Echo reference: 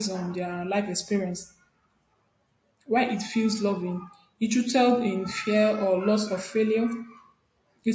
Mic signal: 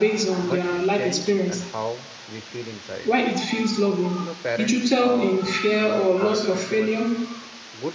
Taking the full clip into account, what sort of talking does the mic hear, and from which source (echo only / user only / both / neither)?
both